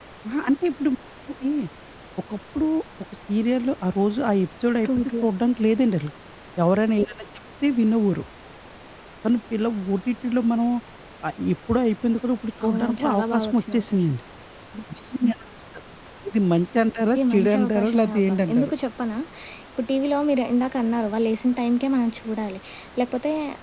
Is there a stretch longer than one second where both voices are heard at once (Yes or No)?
Yes